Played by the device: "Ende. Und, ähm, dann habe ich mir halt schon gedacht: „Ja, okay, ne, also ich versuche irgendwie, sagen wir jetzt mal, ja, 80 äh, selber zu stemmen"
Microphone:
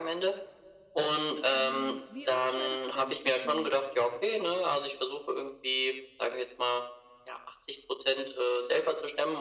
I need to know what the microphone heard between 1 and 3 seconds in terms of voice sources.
both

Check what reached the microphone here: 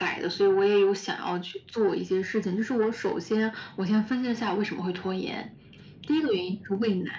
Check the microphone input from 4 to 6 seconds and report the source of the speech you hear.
echo only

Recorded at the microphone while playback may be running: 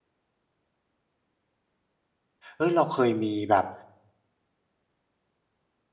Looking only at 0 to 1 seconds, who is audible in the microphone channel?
neither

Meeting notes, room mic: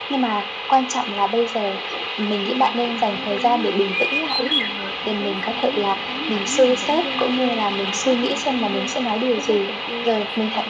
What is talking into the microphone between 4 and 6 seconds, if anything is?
both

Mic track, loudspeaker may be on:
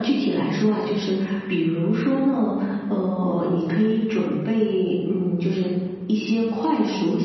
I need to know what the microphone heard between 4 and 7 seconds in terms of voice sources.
echo only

